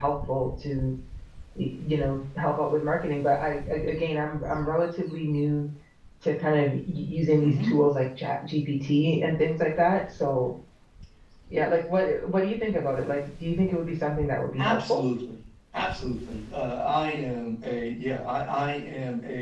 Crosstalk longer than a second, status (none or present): none